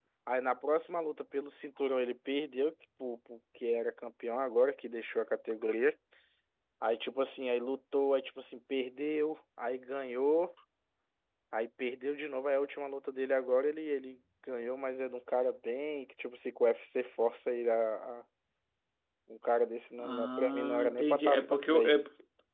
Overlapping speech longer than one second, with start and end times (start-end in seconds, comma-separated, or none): 20.0-22.0